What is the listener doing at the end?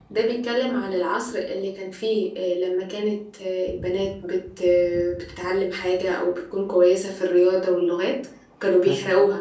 listening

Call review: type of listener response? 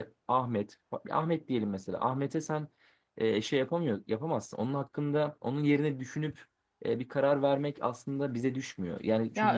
taking over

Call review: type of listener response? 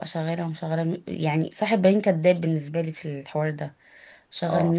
listening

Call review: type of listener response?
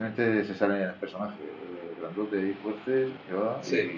listening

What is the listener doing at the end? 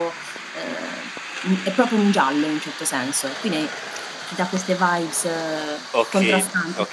taking over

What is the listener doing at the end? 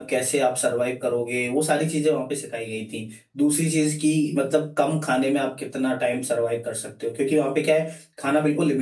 listening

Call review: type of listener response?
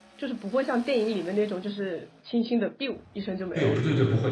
taking over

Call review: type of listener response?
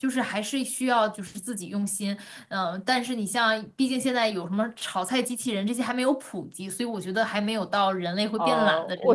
taking over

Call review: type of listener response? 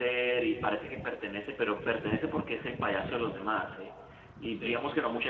listening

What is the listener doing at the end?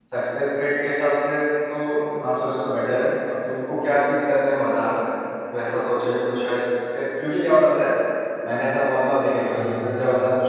listening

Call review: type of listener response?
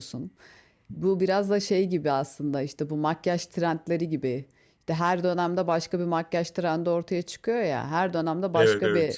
listening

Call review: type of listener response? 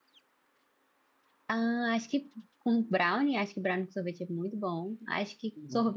listening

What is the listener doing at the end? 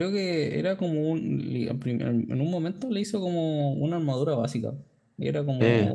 listening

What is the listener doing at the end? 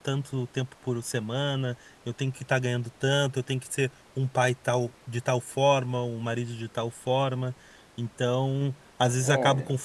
listening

